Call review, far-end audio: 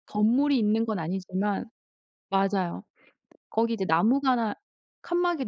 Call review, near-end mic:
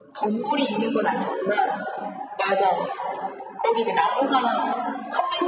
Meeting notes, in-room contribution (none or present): none